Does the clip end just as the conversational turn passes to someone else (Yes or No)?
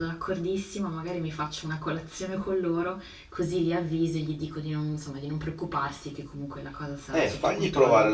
Yes